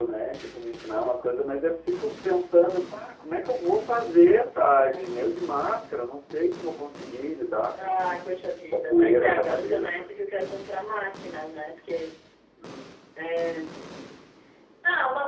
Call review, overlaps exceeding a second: present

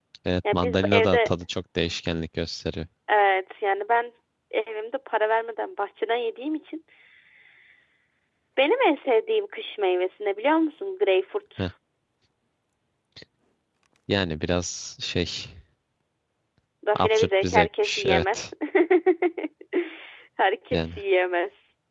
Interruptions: present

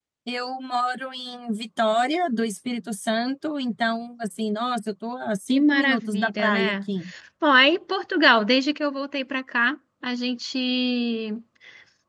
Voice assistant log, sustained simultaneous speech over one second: present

